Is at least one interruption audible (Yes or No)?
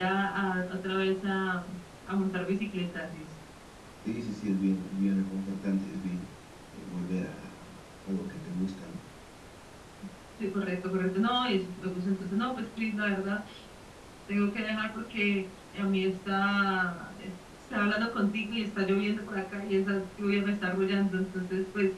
No